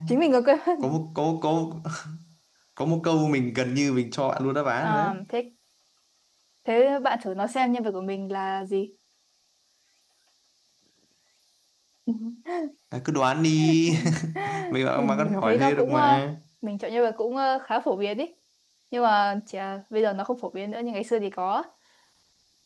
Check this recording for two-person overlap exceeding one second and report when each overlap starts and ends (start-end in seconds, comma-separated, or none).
15.0-16.2